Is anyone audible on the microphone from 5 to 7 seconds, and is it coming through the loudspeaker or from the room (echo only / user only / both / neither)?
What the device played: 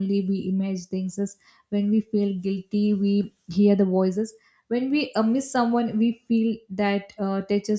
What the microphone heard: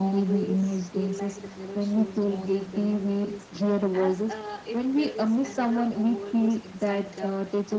both